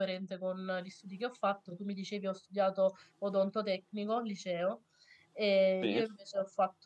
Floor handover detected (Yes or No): No